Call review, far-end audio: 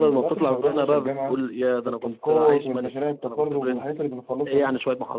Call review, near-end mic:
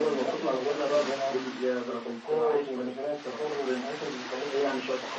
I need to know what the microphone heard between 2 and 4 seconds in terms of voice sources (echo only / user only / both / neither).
echo only